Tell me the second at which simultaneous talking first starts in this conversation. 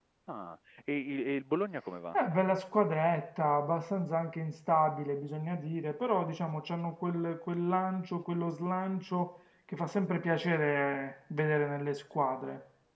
none

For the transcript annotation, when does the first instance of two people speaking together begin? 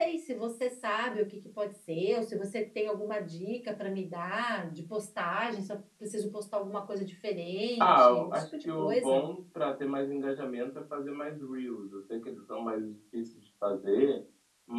7.8 s

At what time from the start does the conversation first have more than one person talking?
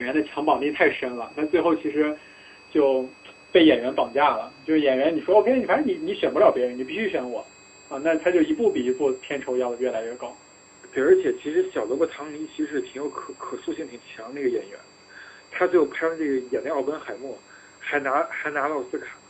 none

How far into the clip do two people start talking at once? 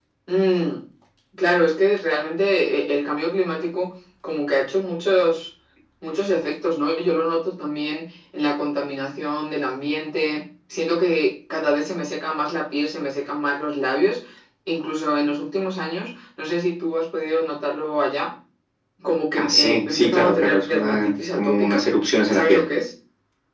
19.4 s

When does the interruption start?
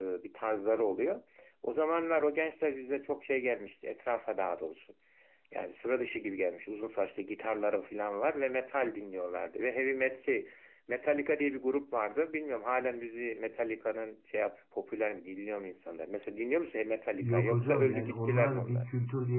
17.2 s

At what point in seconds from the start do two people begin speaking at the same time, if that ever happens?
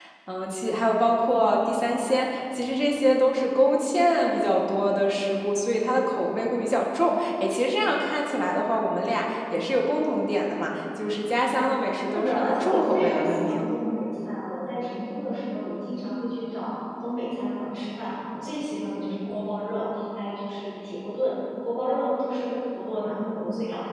12.1 s

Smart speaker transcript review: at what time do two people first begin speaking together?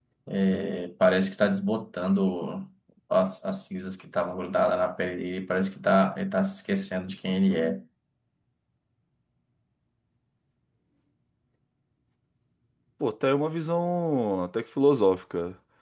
none

